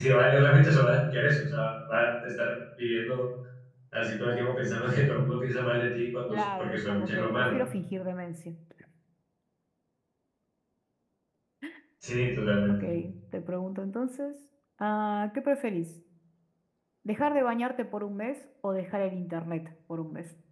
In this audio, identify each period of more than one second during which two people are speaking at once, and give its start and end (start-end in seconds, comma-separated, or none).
6.3-7.5